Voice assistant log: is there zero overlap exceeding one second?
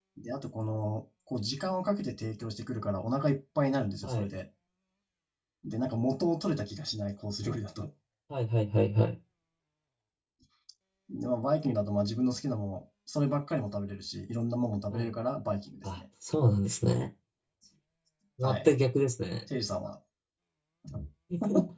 Yes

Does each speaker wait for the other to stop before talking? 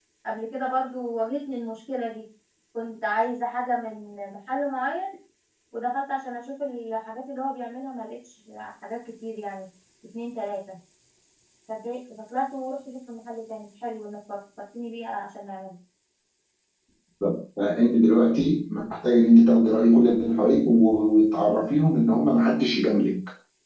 Yes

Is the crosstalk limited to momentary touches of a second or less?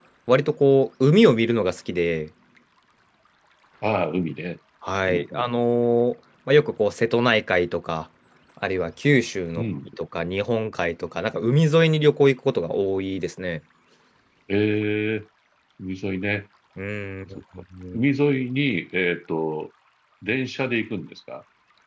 Yes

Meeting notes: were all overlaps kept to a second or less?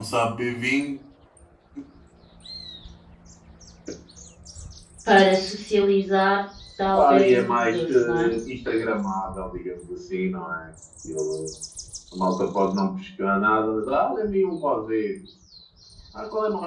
No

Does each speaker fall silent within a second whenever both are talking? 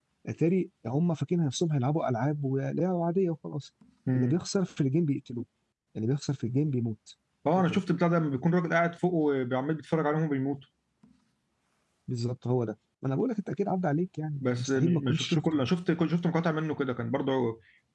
No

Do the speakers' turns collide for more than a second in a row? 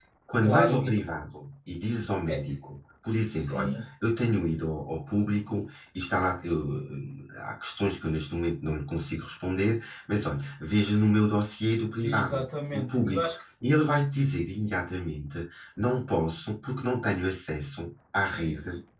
Yes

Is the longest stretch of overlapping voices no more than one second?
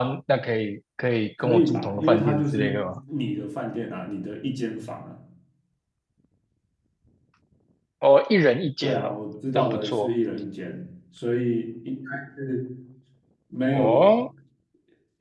No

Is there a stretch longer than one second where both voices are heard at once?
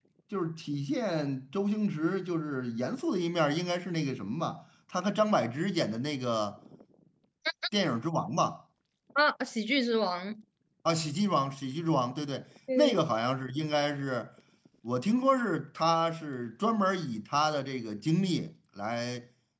No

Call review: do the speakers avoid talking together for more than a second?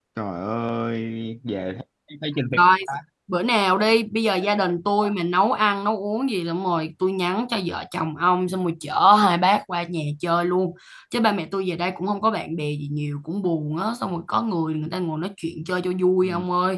Yes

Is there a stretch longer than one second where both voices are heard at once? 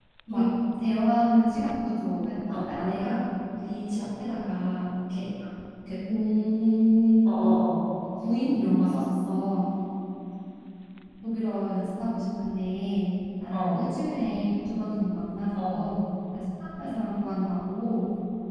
No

